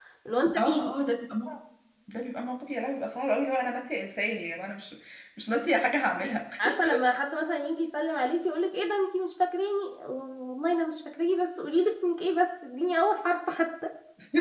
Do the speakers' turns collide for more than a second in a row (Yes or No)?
No